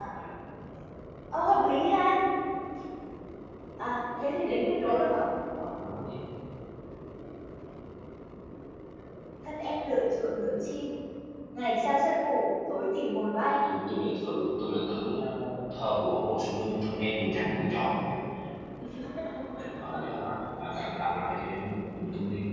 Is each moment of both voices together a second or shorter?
Yes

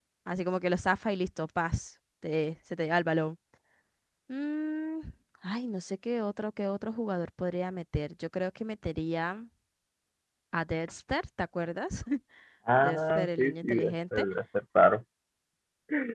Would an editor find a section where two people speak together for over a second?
Yes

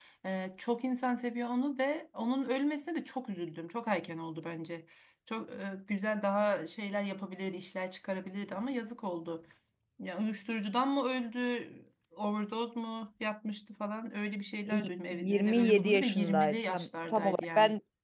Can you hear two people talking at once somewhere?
Yes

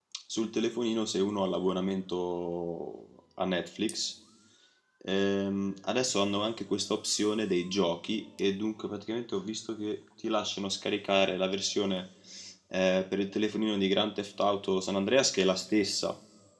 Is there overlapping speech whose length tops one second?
No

